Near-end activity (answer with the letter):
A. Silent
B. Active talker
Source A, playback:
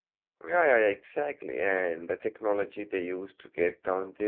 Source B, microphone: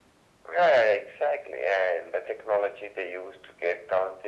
A